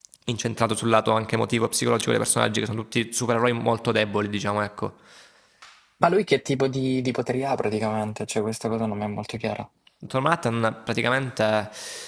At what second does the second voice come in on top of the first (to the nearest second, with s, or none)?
none